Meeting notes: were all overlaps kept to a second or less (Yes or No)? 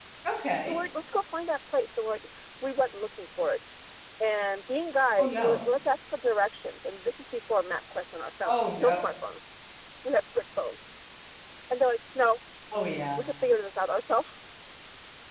Yes